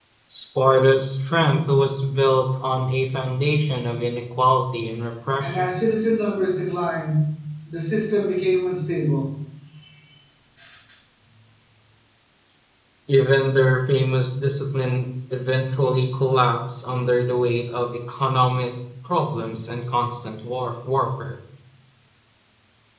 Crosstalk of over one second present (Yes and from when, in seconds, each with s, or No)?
No